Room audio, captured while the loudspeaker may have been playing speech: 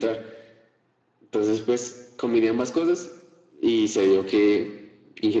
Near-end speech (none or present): none